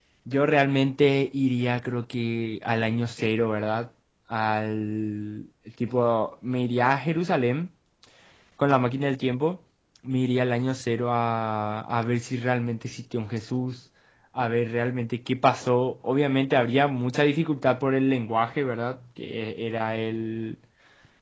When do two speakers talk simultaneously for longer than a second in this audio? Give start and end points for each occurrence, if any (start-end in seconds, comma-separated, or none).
none